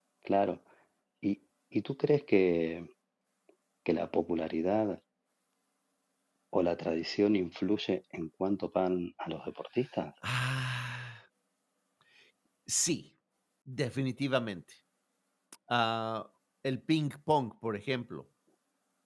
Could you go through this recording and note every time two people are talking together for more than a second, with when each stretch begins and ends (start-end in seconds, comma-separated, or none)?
none